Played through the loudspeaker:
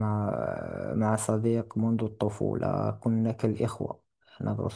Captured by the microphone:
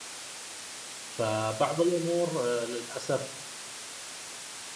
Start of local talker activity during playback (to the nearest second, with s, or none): 1 s